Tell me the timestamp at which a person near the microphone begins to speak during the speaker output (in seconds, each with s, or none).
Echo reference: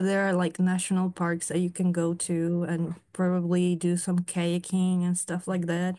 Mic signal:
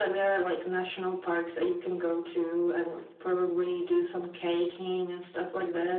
none